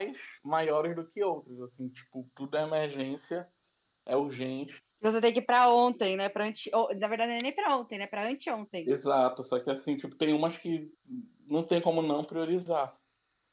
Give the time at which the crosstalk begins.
none

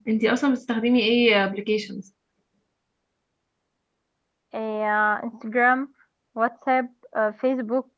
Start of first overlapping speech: none

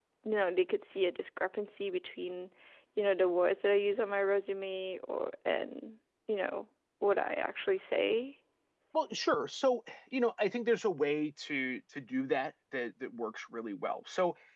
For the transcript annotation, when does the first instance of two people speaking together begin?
none

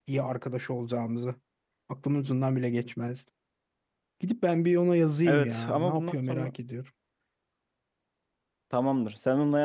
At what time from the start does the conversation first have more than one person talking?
5.2 s

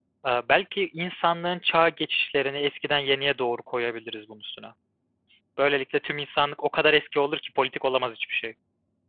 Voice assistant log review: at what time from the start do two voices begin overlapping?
none

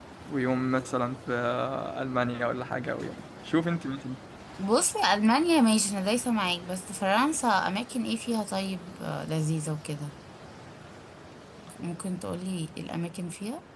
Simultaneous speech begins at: none

